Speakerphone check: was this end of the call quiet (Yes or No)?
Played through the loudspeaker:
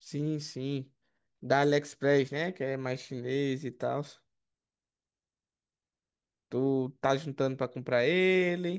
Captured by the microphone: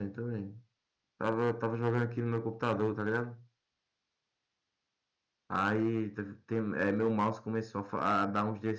No